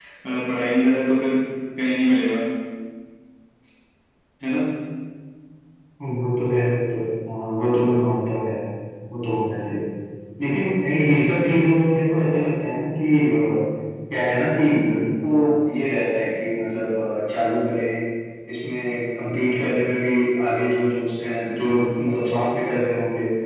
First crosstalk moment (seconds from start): none

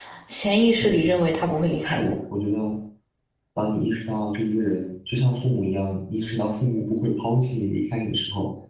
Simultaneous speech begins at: 0.8 s

